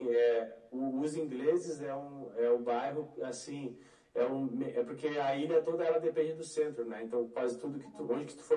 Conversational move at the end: listening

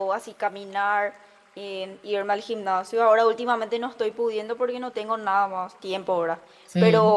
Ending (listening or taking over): listening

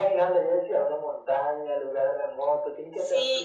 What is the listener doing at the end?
taking over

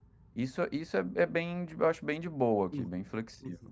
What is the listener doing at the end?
taking over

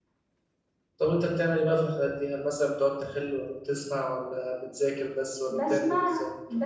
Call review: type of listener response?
taking over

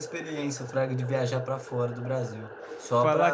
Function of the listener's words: listening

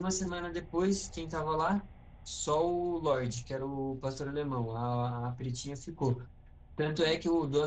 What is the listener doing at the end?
listening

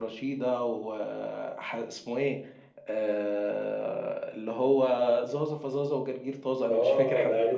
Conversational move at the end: taking over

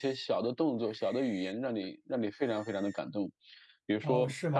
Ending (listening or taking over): taking over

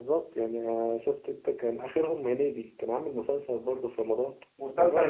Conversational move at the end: taking over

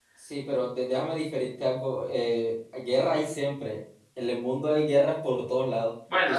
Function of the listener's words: listening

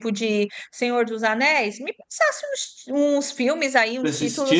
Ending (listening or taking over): listening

